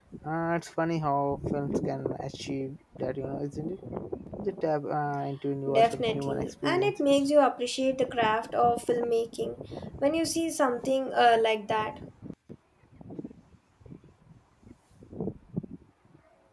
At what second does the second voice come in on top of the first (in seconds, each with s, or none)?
5.7 s